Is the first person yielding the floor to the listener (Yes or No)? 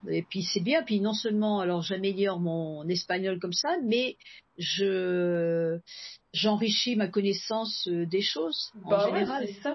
Yes